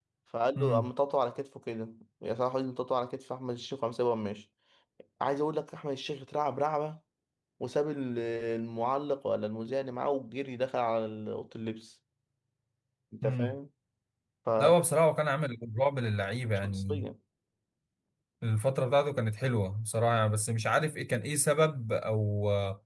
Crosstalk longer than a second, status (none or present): none